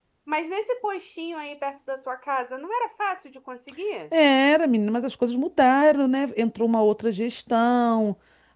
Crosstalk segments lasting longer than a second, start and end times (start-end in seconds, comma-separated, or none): none